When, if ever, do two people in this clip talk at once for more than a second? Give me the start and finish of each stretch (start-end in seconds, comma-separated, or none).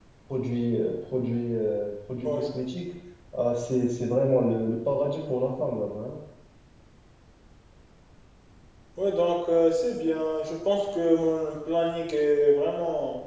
none